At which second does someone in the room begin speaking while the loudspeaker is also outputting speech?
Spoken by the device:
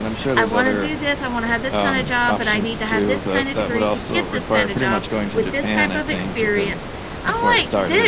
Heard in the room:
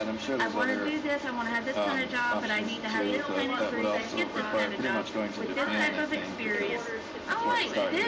2.9 s

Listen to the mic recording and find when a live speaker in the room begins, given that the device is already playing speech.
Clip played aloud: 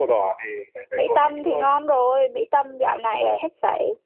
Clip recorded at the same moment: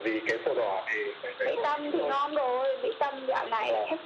none

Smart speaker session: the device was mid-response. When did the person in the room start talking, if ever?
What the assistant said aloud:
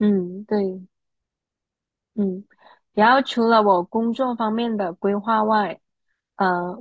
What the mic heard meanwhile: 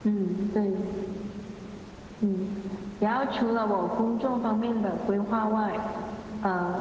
none

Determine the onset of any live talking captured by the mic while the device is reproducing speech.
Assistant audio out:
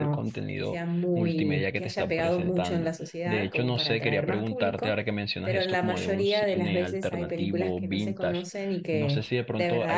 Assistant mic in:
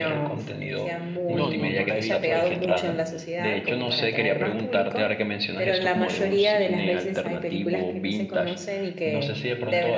1.3 s

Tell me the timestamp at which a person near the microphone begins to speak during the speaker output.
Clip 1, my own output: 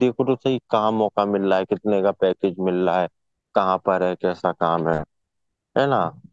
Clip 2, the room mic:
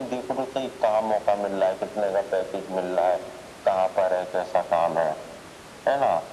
none

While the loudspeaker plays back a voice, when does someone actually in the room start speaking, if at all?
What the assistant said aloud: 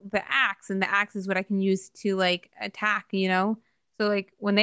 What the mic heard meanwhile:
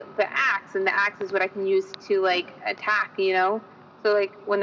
none

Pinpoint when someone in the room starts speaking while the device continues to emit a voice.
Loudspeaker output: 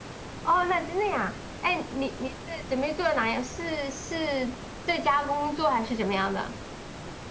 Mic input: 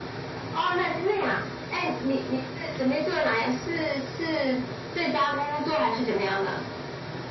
none

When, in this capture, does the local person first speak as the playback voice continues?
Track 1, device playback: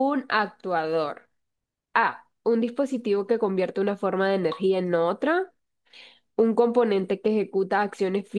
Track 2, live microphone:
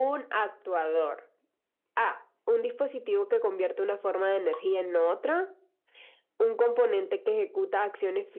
none

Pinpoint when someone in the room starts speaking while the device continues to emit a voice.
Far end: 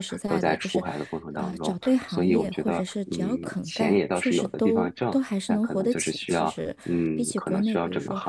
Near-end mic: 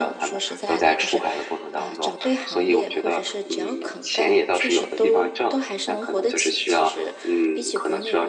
none

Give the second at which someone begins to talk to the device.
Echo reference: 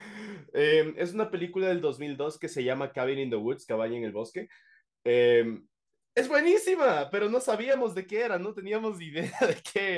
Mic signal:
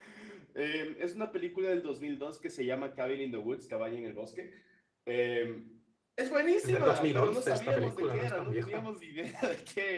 6.6 s

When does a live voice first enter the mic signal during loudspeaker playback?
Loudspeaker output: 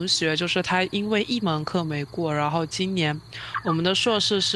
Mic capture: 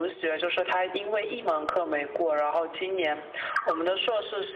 none

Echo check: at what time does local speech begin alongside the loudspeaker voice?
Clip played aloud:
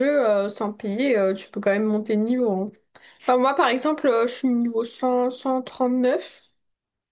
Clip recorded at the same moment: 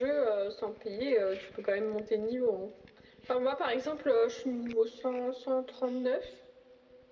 none

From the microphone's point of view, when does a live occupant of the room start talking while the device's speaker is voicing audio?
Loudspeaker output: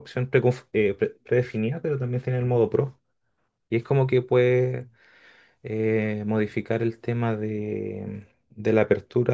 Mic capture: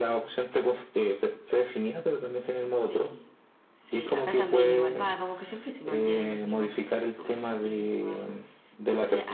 2.7 s

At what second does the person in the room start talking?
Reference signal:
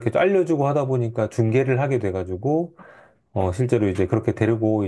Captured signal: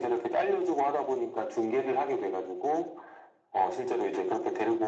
none

